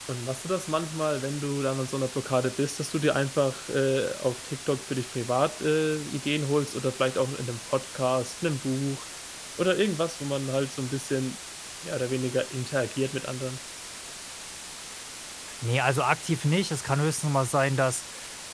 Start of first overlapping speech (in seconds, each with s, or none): none